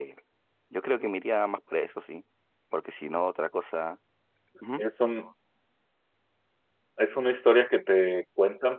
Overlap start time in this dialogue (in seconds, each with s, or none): none